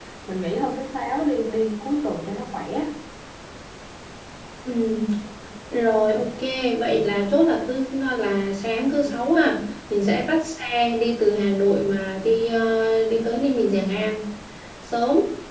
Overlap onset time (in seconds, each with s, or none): none